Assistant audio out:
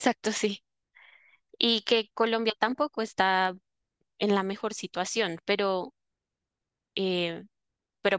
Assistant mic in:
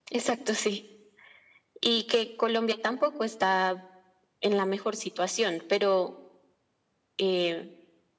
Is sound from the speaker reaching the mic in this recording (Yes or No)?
Yes